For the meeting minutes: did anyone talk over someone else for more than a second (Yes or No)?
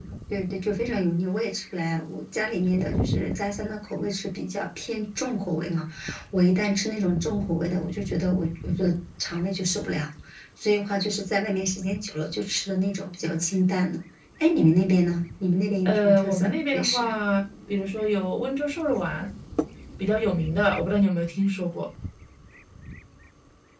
Yes